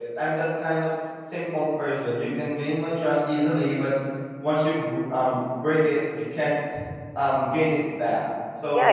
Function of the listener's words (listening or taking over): taking over